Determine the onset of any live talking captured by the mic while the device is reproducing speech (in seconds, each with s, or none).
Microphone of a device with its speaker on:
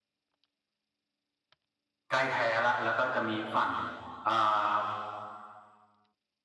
2.1 s